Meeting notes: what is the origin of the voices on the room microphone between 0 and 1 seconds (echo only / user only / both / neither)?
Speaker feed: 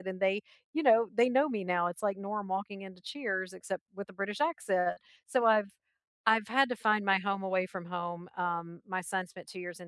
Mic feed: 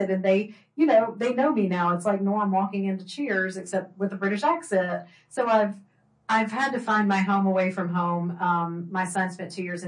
echo only